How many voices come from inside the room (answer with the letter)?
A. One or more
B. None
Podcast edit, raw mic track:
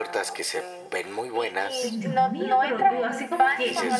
A